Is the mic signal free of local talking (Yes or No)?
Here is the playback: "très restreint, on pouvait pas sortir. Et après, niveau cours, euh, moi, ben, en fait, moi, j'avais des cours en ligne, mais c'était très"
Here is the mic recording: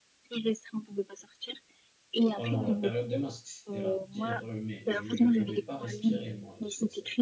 No